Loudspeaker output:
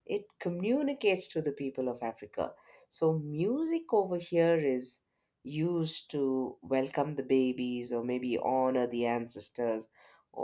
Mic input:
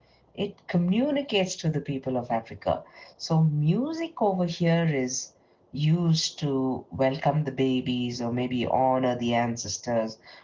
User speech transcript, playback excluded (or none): none